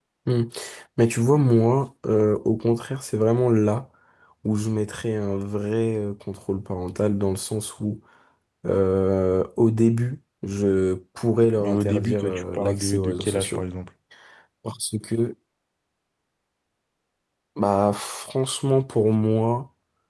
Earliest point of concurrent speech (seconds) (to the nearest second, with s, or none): 12 s